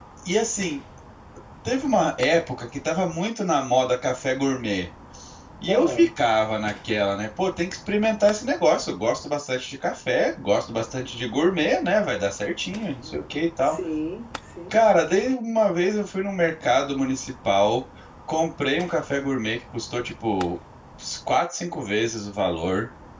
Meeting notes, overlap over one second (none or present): none